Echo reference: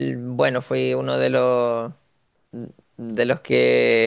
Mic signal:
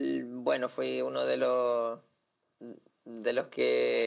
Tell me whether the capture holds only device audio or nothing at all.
Yes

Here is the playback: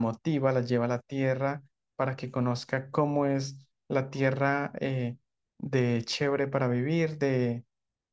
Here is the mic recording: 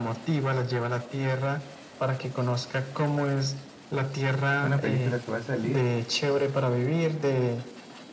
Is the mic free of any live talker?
No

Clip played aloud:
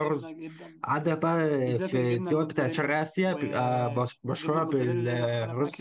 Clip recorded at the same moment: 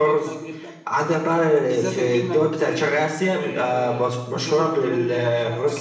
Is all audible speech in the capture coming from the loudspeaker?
Yes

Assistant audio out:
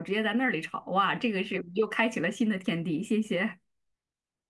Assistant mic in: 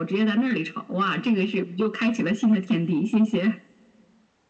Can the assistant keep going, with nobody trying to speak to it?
Yes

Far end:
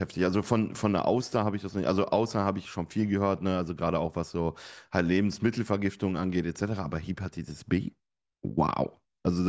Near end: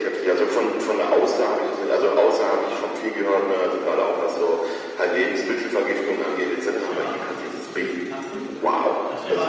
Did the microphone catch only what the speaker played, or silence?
No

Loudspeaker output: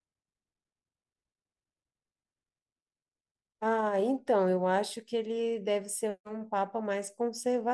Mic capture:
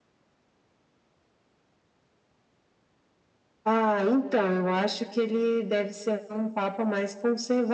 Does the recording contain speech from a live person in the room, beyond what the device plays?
No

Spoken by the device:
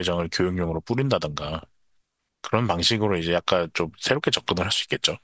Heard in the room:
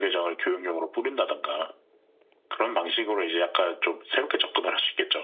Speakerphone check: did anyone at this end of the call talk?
No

